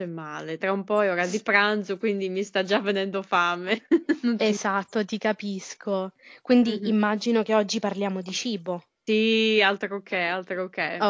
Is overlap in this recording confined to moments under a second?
Yes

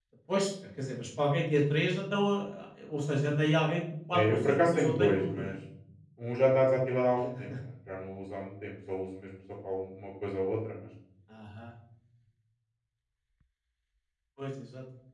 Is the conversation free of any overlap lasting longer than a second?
No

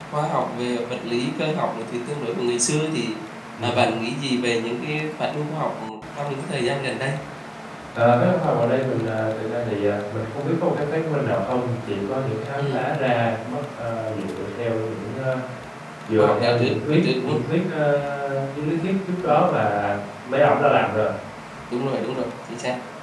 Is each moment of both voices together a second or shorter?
No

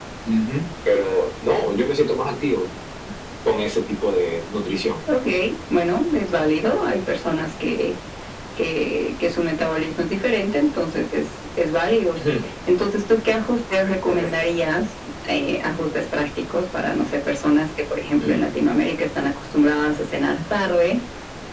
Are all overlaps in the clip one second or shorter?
Yes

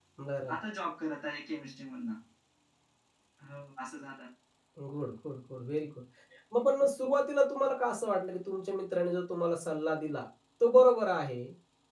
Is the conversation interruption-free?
Yes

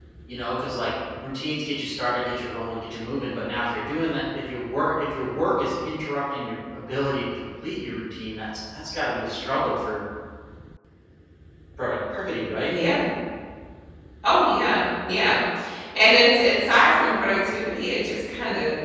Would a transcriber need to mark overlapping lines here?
No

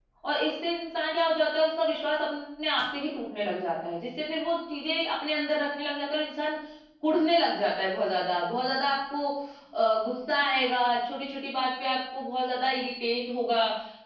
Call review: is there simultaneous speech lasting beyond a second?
No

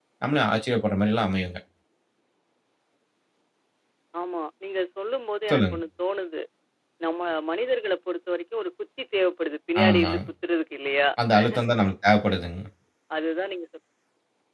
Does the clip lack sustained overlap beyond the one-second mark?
Yes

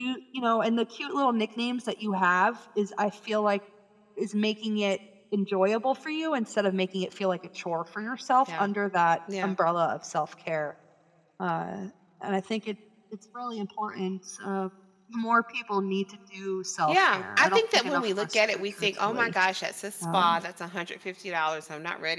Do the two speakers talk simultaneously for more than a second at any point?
Yes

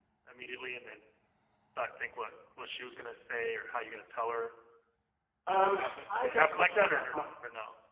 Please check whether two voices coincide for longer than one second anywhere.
Yes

